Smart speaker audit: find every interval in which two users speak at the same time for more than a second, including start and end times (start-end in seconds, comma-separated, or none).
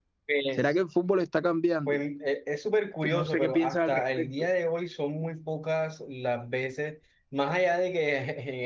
3.0-4.3